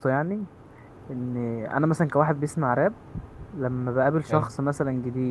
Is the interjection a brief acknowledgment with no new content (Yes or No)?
Yes